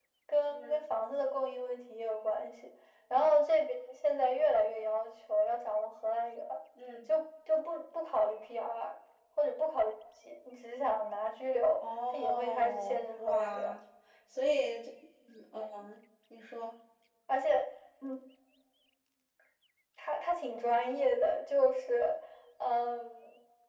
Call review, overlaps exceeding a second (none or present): present